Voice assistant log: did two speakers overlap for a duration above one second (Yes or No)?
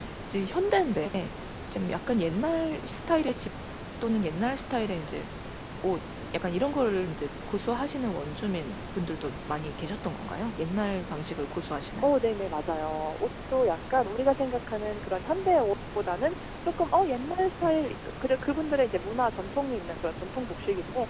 No